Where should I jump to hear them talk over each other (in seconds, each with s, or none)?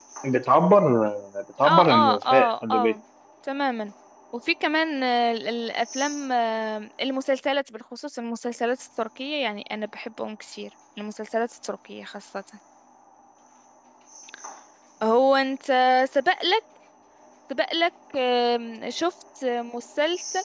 1.6 s